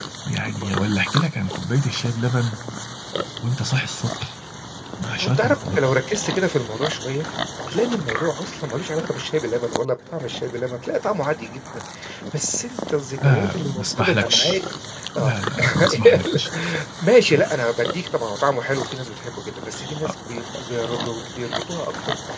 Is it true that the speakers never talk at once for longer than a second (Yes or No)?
No